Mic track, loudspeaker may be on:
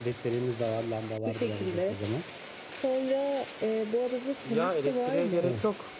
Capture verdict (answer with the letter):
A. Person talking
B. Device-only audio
A